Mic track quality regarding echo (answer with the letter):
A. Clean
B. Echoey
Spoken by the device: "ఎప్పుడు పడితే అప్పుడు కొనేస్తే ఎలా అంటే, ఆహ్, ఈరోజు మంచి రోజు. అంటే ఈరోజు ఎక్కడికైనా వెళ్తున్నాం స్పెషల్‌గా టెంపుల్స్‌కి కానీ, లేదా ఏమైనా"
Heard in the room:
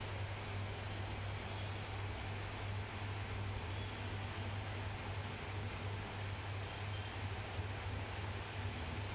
A